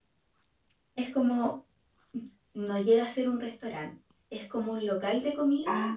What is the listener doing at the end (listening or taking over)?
taking over